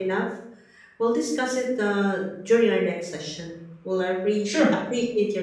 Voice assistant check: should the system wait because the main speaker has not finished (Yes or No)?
Yes